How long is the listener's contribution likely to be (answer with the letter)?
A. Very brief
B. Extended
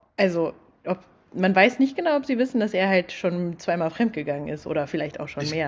B